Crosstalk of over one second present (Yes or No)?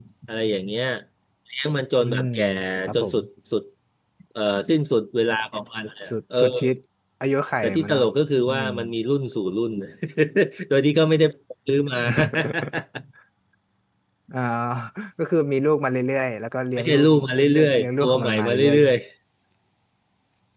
Yes